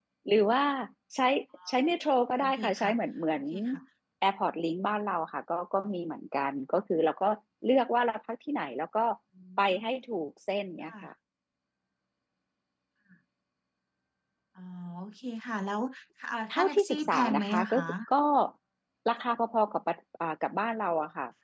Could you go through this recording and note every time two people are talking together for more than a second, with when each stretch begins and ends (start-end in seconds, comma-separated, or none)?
16.5-17.8